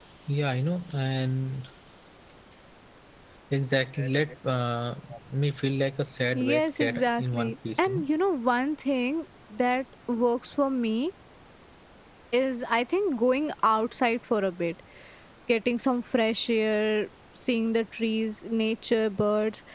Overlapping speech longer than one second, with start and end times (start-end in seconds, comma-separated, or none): 6.3-8.0